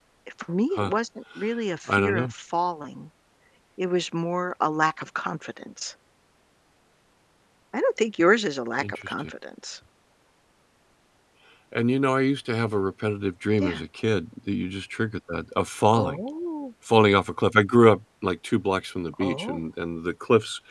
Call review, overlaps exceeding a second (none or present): none